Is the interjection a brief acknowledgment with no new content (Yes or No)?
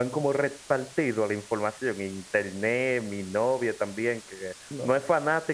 Yes